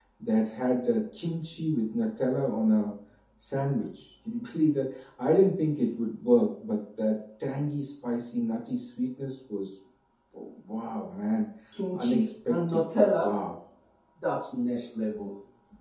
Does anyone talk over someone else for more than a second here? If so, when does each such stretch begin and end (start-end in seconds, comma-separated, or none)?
11.9-13.3